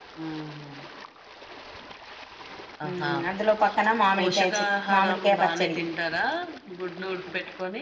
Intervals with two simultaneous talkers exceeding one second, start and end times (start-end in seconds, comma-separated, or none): 4.2-5.8